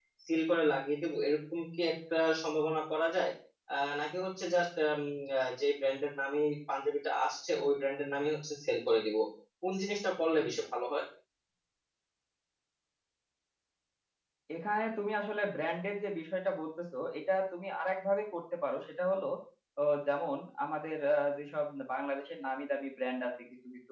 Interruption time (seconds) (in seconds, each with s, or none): none